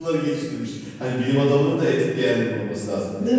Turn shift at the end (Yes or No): No